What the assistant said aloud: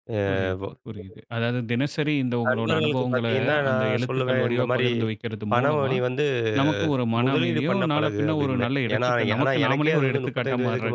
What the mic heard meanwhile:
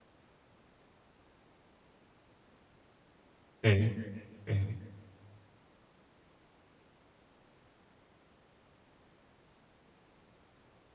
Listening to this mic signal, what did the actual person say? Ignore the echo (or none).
சரி, சரி.